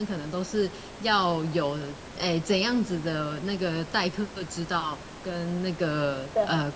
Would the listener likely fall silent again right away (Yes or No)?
Yes